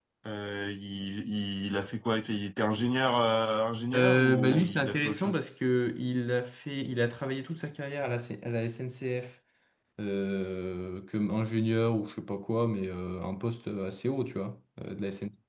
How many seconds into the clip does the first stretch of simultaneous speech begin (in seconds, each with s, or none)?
3.9 s